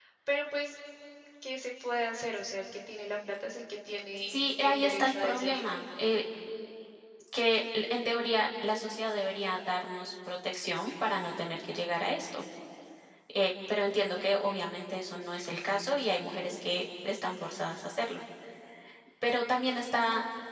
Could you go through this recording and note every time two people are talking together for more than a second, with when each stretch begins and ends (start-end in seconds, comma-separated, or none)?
4.3-5.7